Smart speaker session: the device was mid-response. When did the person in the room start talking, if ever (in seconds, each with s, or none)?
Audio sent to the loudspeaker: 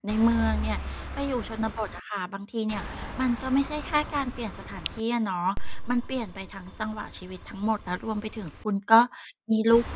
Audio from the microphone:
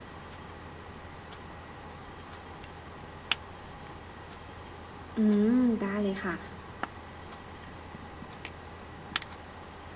5.2 s